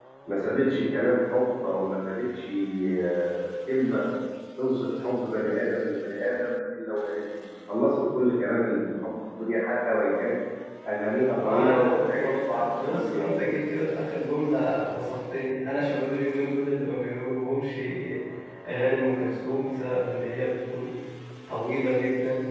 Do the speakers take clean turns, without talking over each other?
No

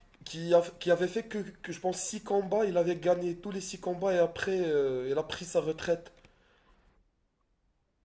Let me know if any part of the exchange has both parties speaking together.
No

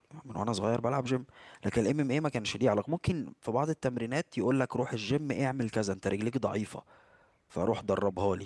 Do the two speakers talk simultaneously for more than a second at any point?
No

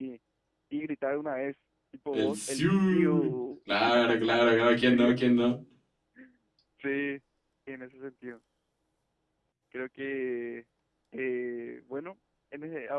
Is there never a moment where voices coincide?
No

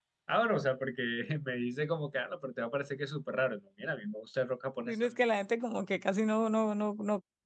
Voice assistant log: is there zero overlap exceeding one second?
Yes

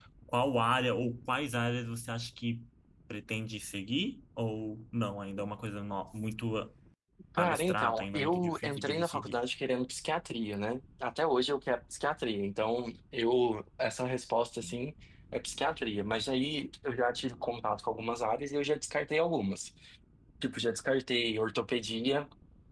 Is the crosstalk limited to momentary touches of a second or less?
No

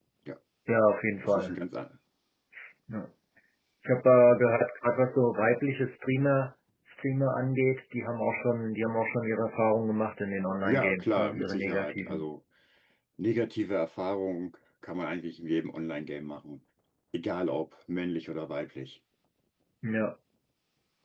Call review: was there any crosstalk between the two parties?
Yes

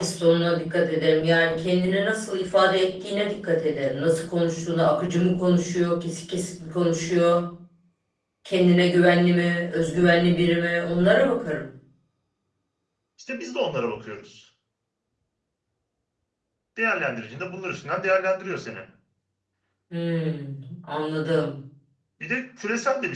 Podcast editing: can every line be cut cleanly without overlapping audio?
Yes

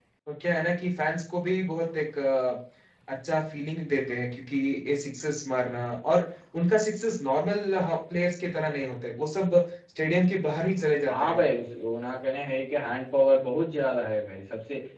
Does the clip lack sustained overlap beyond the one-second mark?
Yes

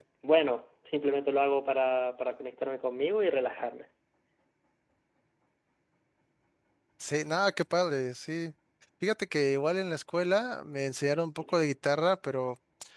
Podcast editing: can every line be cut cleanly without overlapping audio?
Yes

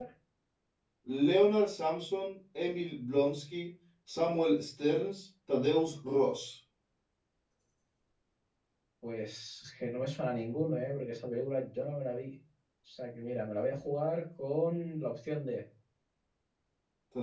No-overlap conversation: Yes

